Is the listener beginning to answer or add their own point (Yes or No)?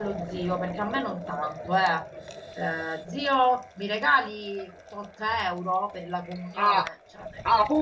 Yes